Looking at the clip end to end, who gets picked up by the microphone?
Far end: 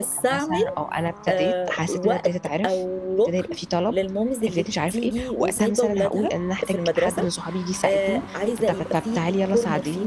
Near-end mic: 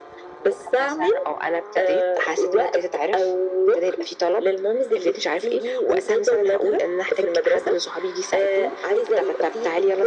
echo only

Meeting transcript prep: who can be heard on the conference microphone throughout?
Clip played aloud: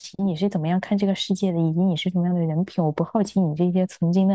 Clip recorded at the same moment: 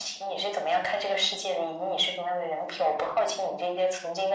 echo only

